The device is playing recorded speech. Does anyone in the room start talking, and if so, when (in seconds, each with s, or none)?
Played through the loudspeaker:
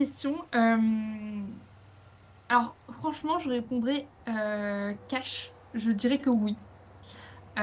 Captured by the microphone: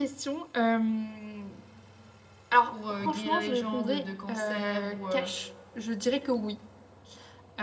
2.7 s